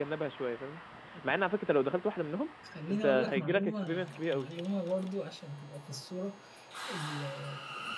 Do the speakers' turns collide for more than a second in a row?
Yes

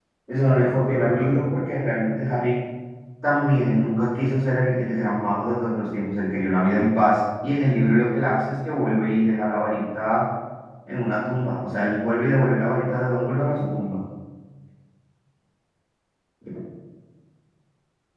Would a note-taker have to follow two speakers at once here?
No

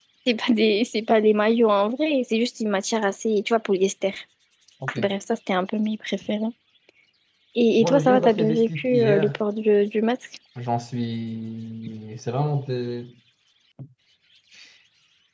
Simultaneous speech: Yes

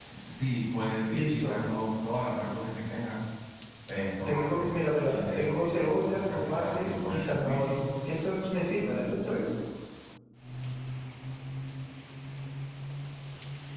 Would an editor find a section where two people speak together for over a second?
Yes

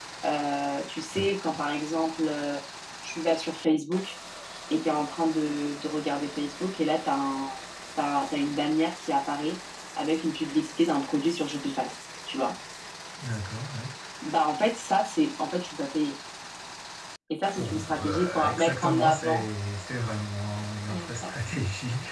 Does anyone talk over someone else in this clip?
Yes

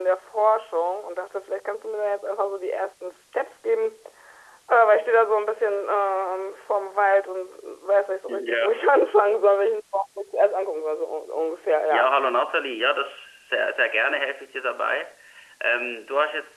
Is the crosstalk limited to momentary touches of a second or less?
Yes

